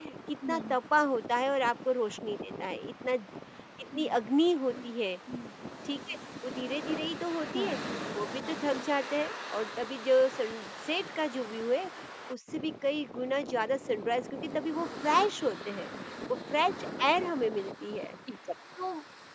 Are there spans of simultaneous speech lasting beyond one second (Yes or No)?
No